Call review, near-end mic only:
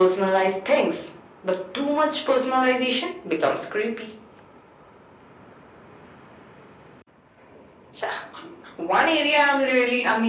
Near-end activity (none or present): none